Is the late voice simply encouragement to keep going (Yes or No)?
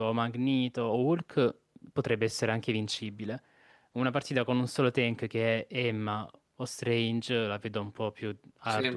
No